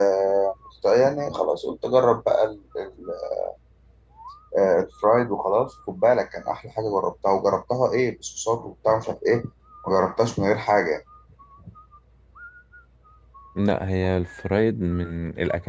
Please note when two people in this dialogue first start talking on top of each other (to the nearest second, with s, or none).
none